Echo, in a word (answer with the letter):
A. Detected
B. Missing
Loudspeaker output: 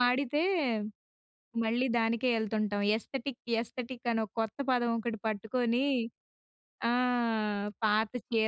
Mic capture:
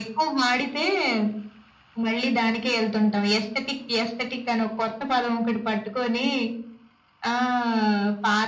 A